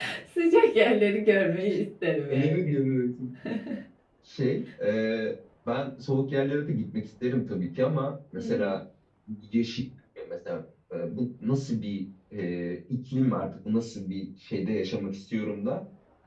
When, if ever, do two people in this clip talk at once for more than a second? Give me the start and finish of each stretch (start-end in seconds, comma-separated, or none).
none